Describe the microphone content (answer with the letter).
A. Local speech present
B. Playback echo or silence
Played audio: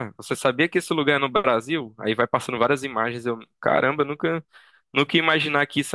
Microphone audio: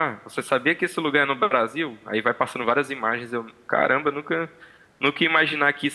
B